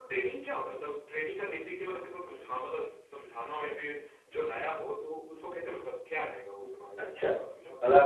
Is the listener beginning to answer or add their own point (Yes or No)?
Yes